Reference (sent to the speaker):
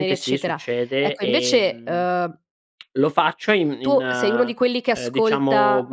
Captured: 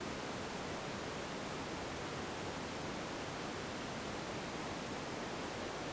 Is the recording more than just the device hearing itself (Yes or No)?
No